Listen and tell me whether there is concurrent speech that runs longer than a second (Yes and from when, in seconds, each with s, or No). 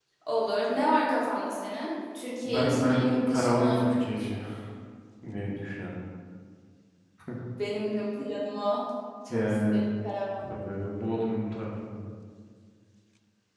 Yes, from 2.4 s